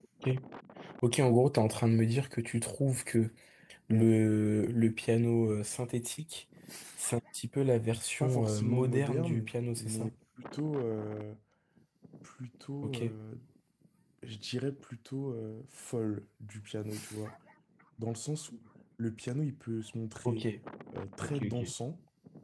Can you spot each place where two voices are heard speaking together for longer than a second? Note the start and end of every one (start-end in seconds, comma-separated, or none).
8.2-10.1